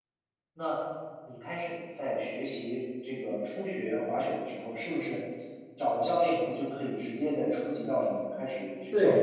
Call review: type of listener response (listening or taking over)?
taking over